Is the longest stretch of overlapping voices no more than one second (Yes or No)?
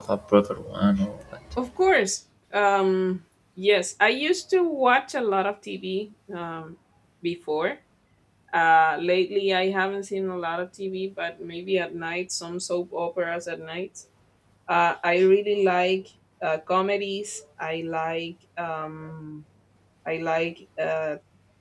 Yes